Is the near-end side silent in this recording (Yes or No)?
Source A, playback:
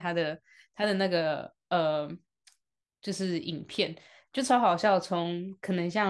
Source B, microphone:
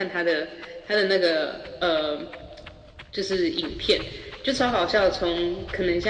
Yes